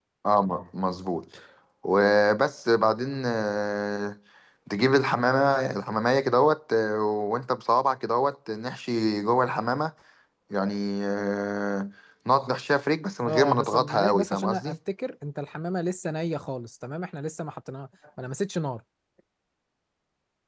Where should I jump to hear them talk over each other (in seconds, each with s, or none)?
13.2 s